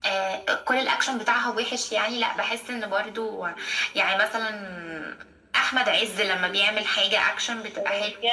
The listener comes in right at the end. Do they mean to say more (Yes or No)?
Yes